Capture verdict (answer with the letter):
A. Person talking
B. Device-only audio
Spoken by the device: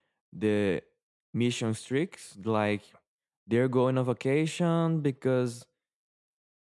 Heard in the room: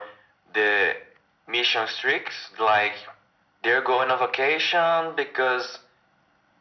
B